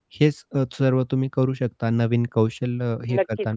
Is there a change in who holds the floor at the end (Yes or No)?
Yes